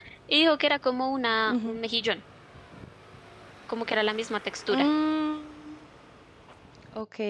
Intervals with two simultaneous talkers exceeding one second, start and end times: none

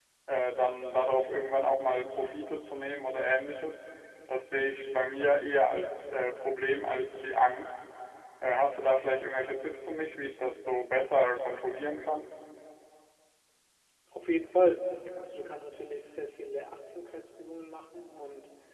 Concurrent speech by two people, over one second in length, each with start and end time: none

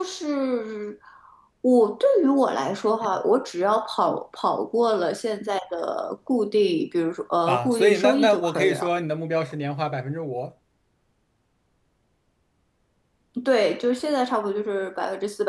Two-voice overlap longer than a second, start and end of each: 7.5-8.9

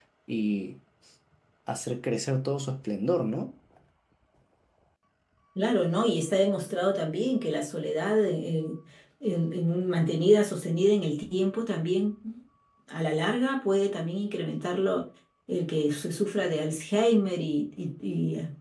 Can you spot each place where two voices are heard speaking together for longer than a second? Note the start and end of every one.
none

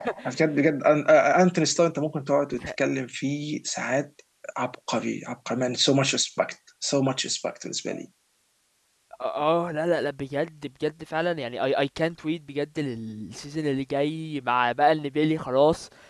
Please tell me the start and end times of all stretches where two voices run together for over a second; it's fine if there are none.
none

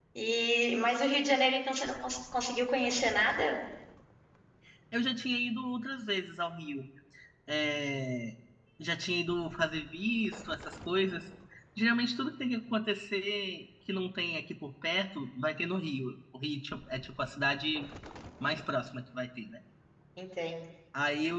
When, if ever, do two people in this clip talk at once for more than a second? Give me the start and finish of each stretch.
none

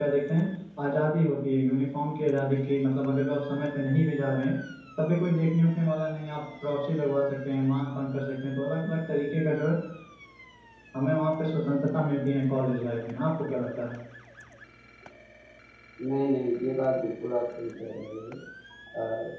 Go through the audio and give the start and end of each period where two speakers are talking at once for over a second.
none

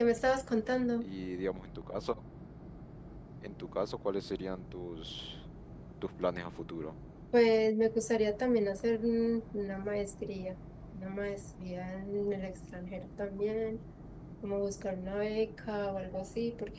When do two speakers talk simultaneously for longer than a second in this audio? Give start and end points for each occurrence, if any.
none

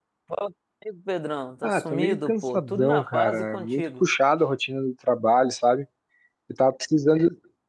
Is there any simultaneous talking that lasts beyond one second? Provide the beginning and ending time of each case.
1.6-4.0

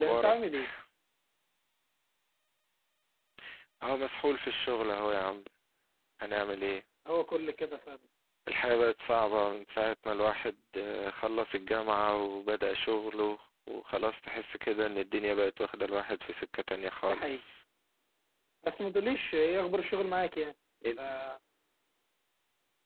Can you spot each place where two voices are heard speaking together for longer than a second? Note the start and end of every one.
none

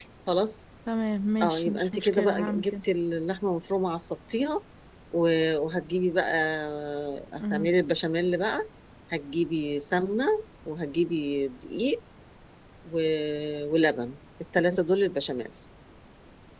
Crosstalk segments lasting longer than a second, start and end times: 1.4-2.8

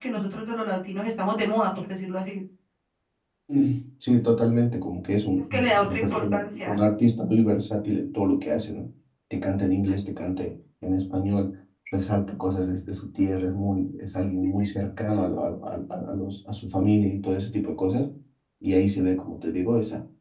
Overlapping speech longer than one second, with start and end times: 5.5-6.8

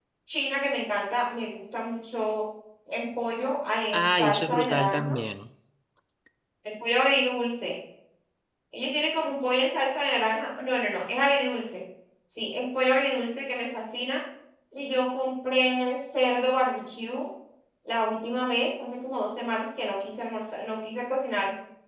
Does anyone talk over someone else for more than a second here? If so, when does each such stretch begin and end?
3.9-5.2

